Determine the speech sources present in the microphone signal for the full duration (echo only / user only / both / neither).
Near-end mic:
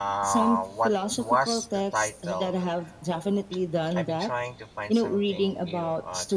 both